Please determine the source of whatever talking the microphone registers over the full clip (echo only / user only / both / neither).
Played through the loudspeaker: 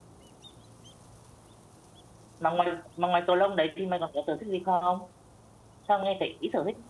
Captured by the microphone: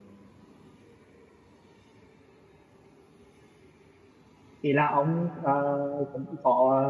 user only